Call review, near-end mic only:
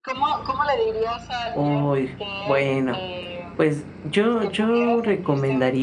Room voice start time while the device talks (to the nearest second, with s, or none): 2 s